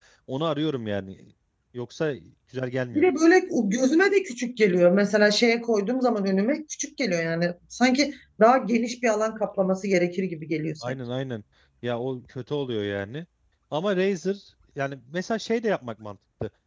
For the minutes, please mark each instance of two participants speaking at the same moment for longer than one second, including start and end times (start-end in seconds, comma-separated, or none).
none